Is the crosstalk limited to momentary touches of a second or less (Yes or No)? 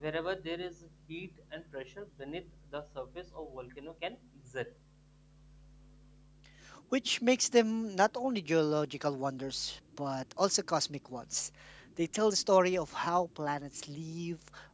Yes